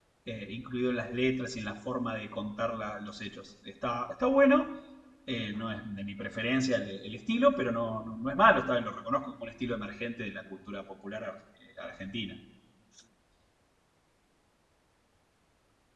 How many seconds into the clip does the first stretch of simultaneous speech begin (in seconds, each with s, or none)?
none